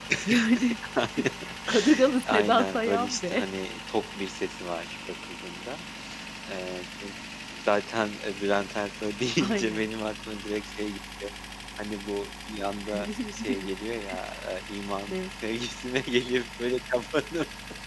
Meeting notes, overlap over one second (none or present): present